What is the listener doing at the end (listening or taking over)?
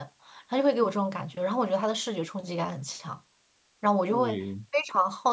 listening